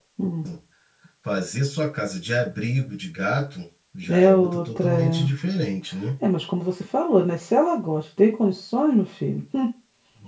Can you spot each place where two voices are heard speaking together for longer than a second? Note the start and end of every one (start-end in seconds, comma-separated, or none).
4.1-5.3